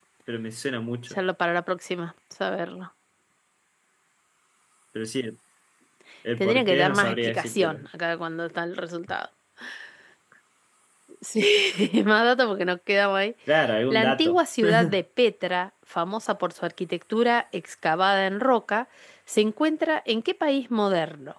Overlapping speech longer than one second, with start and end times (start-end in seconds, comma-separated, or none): 6.4-7.9